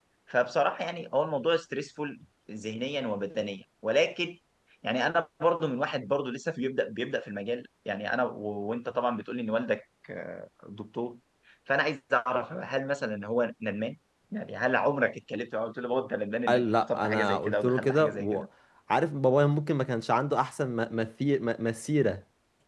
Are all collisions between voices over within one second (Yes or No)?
No